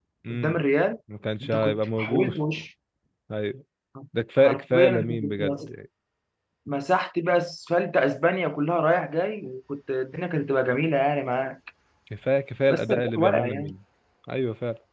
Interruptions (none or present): present